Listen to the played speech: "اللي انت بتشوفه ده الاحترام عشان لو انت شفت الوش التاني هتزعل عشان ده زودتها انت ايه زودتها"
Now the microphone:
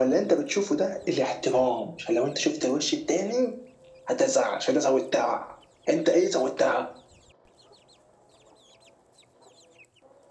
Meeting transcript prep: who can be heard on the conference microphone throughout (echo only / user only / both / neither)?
echo only